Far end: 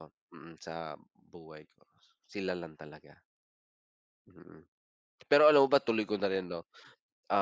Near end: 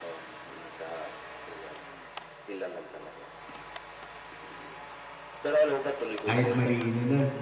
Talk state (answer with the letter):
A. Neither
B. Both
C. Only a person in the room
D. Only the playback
B